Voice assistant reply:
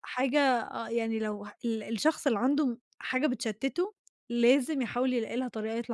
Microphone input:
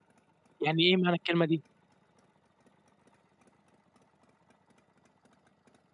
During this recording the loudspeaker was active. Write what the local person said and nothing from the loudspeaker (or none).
يعني إيه معنى الكلمة دي،